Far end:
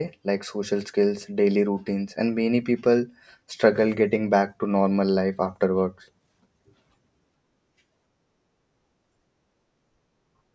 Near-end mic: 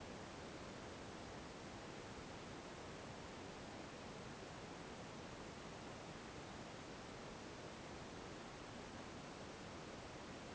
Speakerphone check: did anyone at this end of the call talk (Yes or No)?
No